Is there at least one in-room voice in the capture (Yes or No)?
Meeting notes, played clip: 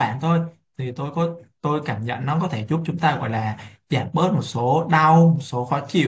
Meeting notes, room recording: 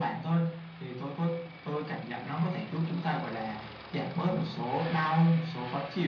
No